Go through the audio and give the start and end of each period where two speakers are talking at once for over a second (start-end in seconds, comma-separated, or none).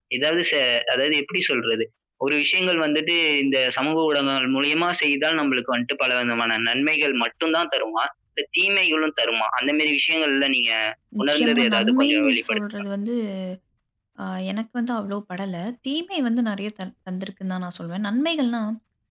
11.2-12.6